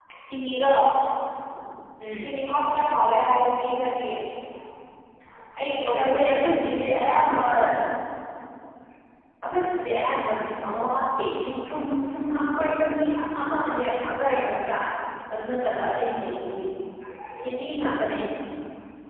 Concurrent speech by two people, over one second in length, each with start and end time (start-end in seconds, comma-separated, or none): 6.0-7.5